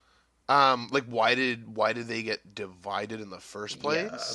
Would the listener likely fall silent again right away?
No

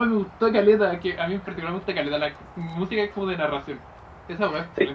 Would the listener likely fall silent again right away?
No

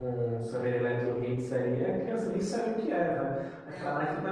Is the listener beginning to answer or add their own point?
No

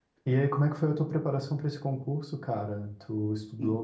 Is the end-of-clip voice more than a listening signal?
No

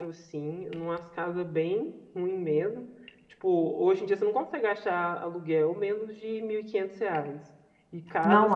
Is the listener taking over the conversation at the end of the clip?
No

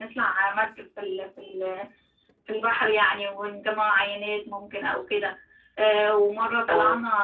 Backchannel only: Yes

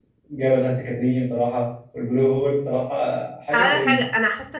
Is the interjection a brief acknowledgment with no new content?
No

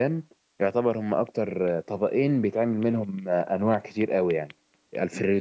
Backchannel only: Yes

